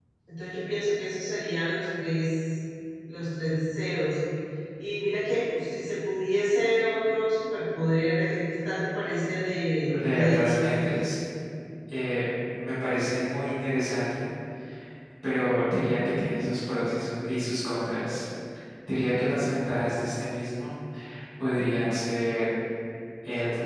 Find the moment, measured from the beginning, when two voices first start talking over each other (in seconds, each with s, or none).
9.9 s